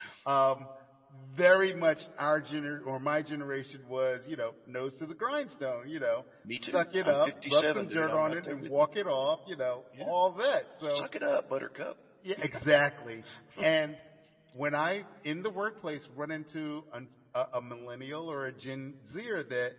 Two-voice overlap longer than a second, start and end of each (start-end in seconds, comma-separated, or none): 6.6-8.9